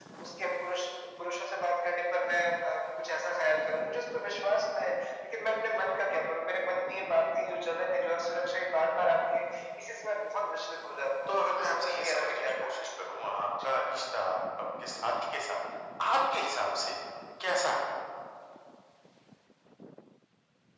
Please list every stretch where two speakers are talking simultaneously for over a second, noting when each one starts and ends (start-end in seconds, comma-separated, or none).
11.3-12.9